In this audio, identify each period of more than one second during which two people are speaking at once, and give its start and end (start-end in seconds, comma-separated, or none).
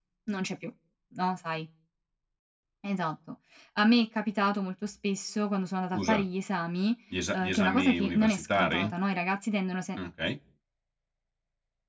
7.3-8.9